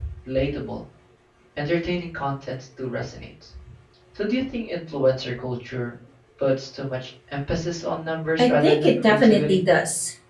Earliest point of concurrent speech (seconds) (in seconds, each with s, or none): 8.4 s